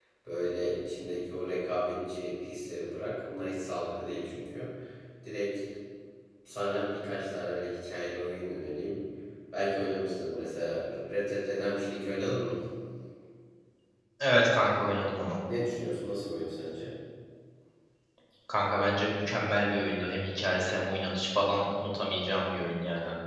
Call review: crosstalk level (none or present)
none